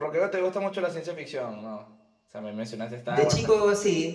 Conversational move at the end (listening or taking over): taking over